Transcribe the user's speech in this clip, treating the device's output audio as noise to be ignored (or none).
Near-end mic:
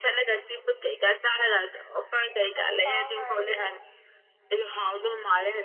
ꯑꯗꯨ ꯇꯥ ꯉꯥꯏꯕꯅꯤꯅꯦ